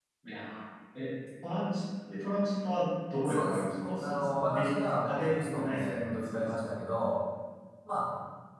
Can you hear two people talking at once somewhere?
Yes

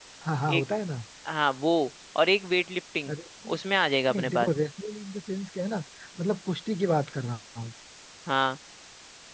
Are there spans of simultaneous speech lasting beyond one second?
No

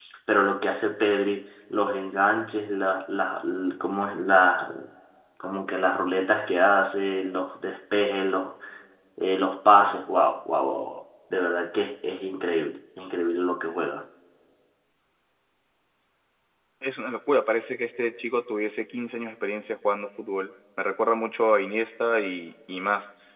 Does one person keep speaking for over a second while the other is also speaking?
No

